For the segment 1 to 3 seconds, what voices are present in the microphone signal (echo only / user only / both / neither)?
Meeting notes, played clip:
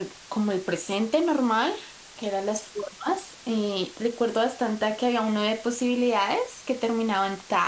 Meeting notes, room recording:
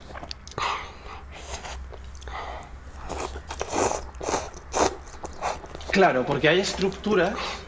neither